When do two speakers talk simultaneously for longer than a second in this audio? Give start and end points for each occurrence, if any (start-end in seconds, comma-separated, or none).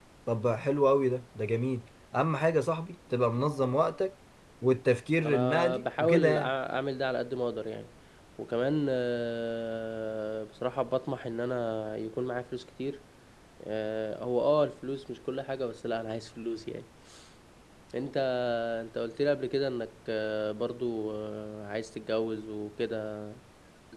5.2-6.5